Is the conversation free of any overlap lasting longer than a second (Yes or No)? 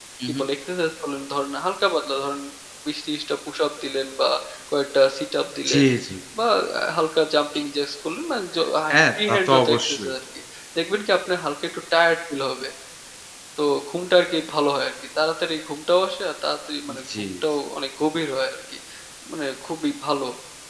No